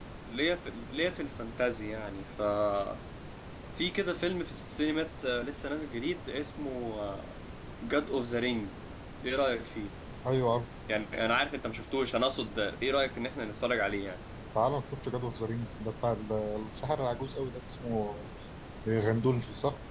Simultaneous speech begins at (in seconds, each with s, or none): none